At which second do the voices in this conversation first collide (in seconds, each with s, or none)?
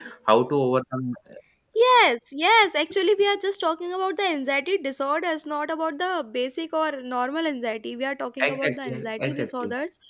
8.4 s